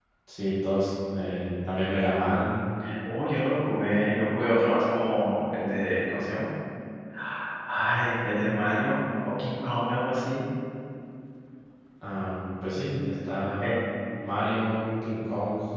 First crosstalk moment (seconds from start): none

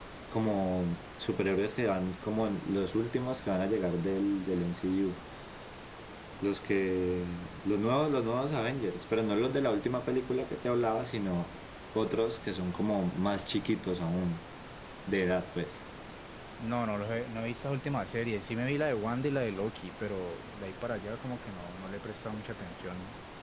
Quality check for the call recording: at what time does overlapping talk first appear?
none

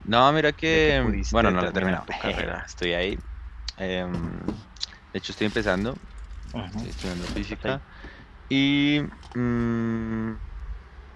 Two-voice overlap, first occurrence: 0.7 s

